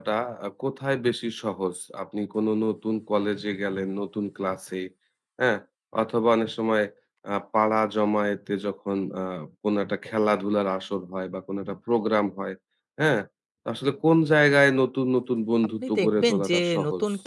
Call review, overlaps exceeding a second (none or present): present